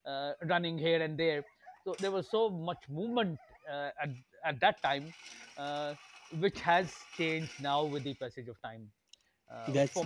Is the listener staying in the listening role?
Yes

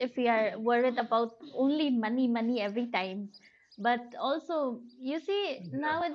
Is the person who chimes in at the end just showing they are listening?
Yes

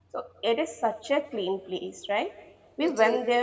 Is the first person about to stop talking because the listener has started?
No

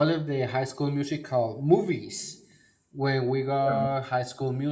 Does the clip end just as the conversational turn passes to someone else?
No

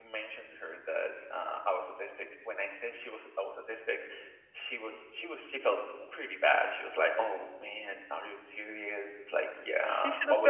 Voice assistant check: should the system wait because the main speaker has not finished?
No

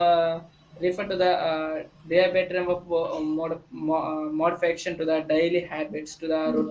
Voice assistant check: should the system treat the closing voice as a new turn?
No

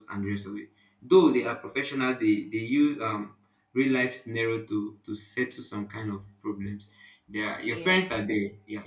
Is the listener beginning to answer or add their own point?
No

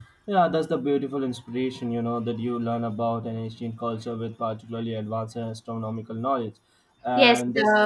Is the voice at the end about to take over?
Yes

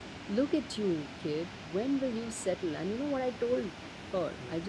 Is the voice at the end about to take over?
No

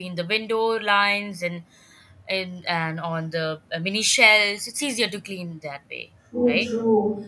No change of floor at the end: No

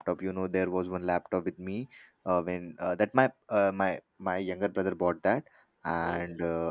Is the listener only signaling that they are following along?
Yes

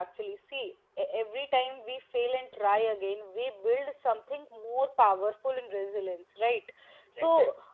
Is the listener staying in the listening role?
Yes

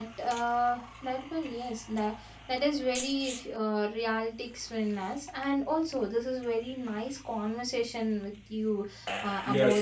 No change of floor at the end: Yes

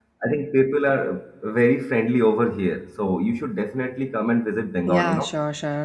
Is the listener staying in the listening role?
No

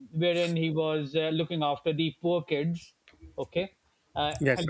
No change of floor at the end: Yes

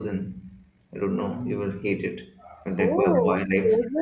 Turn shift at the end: Yes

